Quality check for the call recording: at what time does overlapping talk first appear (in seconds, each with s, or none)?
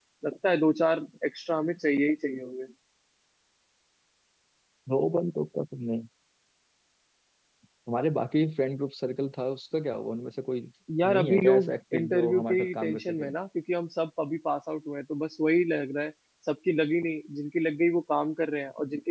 11.0 s